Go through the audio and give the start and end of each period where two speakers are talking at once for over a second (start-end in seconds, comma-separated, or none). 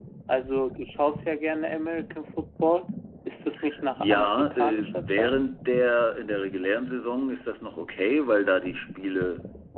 4.0-5.4